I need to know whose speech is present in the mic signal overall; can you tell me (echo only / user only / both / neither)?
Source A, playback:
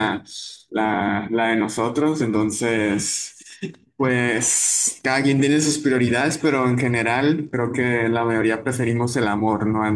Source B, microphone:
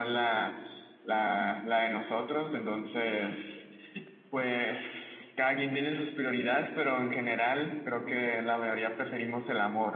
echo only